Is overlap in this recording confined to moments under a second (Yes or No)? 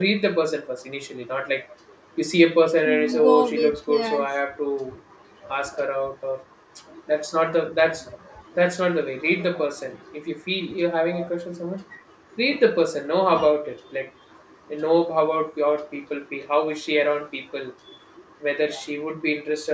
No